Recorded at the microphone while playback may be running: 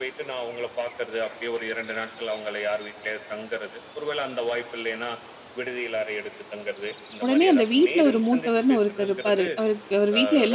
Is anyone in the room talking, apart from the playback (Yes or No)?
Yes